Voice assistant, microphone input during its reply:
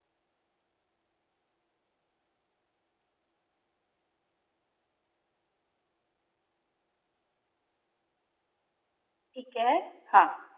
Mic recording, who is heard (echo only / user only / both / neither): user only